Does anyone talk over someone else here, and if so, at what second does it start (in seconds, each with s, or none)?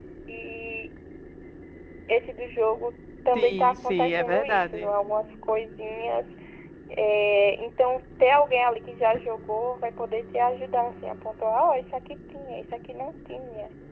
3.4 s